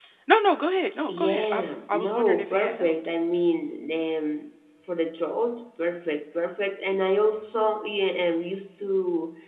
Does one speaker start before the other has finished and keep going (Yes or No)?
Yes